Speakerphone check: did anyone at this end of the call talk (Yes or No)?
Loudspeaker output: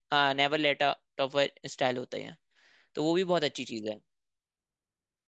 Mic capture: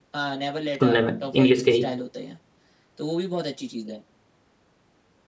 Yes